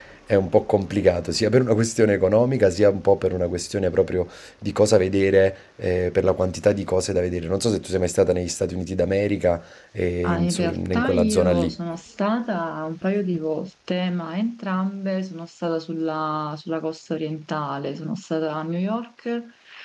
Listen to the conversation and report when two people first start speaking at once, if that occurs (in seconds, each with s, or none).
10.2 s